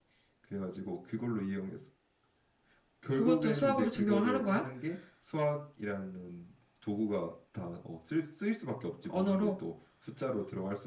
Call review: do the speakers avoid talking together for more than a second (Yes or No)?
No